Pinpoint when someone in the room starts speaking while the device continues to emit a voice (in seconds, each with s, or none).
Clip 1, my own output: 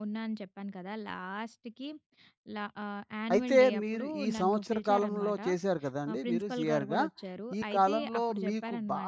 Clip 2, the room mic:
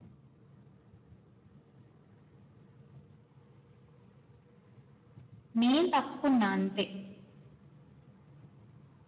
5.6 s